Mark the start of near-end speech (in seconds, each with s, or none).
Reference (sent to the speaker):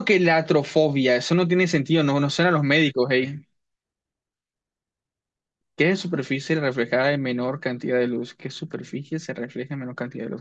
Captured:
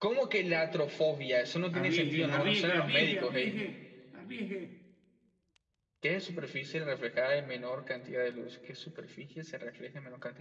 1.7 s